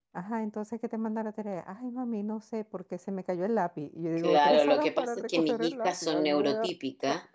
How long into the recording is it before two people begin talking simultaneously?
4.2 s

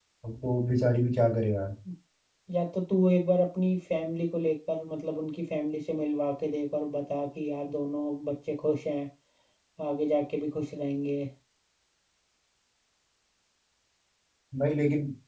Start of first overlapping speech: none

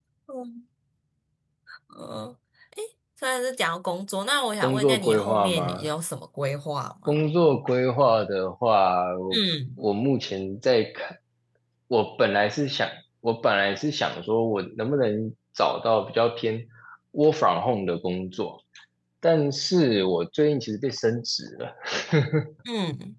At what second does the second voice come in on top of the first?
4.6 s

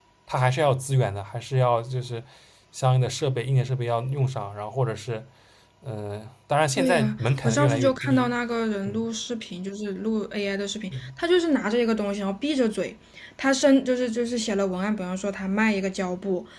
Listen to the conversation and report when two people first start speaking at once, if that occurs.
6.8 s

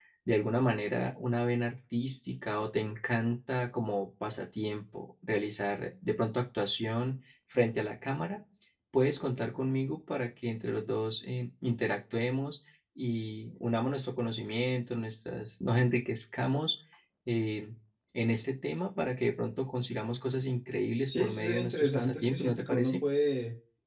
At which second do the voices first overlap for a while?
21.1 s

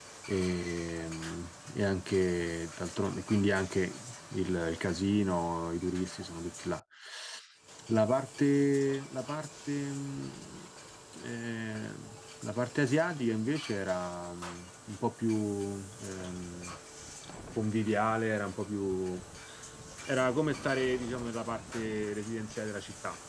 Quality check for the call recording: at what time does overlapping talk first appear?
none

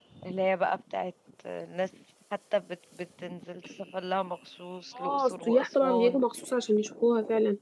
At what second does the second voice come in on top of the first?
5.0 s

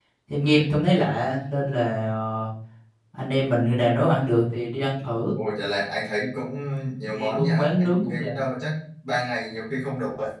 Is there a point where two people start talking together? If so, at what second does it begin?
7.0 s

